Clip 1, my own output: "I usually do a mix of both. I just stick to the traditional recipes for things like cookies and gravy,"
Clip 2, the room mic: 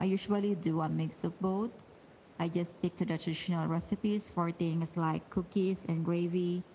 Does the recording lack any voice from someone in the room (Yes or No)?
Yes